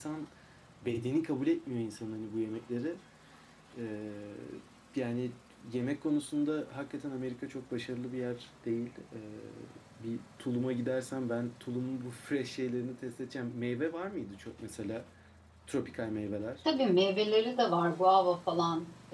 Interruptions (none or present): none